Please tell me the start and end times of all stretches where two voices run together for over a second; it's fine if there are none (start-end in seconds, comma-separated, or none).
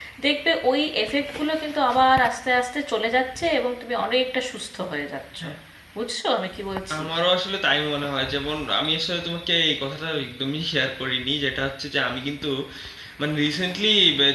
none